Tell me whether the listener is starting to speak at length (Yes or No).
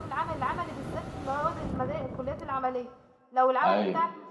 No